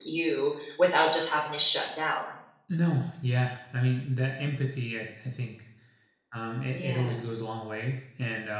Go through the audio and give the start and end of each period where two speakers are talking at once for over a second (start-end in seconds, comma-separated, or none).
none